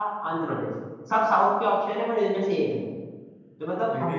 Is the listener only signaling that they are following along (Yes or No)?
Yes